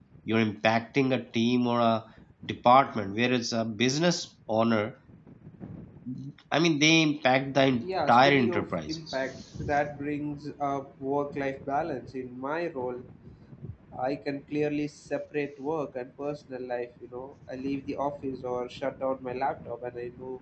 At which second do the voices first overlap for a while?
7.8 s

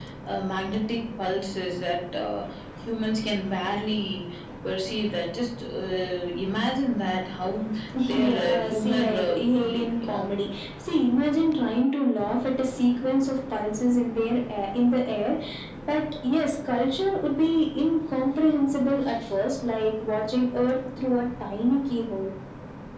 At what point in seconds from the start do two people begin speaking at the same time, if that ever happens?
7.9 s

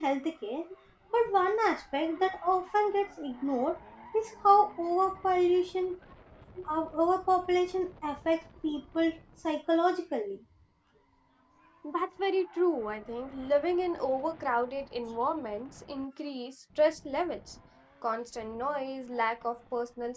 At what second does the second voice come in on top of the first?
none

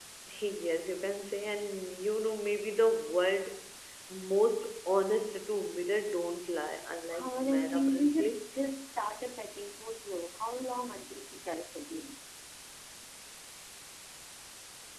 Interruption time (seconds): 7.1 s

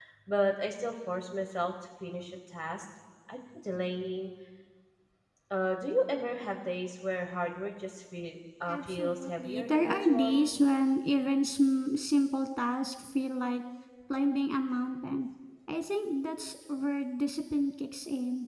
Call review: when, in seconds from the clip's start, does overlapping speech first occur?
8.7 s

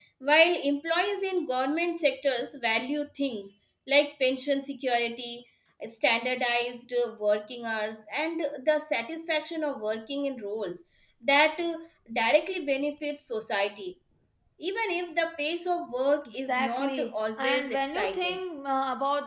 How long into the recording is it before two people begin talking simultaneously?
16.3 s

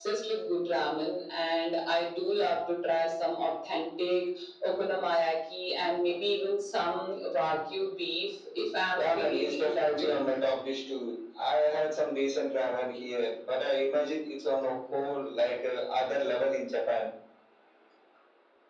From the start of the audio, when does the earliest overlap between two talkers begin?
8.9 s

